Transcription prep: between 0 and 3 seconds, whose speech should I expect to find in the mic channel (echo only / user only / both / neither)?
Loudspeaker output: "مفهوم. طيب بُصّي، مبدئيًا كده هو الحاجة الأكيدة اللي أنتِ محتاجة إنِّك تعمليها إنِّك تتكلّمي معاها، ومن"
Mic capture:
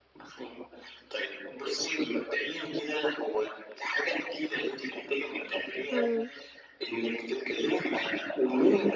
echo only